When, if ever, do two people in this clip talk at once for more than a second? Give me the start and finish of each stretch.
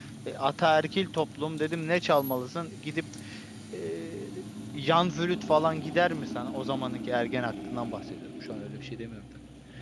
none

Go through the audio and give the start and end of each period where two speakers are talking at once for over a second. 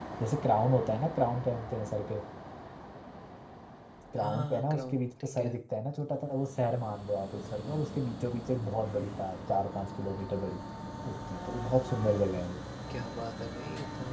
4.2-5.6

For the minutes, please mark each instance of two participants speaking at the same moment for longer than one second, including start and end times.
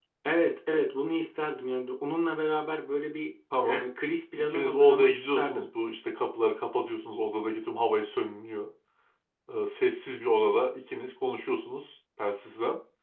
4.4-5.7

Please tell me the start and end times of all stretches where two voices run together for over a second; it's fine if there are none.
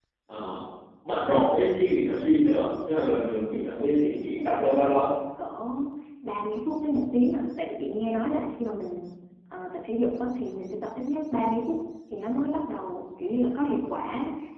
3.5-5.0

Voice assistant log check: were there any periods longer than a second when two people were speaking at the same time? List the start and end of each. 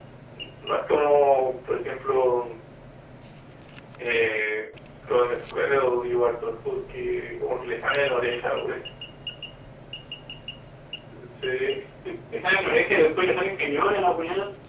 none

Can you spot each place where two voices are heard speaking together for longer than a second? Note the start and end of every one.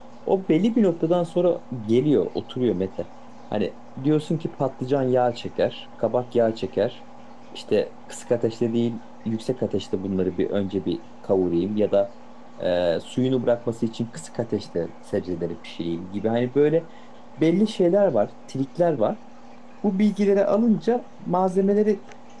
none

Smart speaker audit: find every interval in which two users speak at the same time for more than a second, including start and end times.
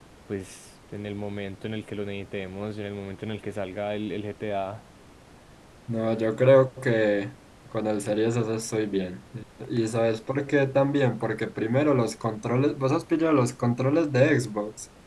none

